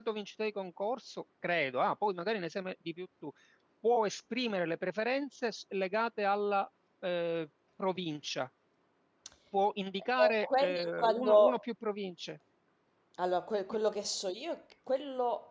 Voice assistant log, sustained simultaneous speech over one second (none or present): present